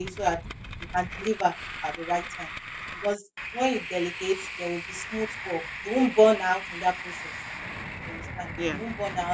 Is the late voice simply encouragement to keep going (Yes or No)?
Yes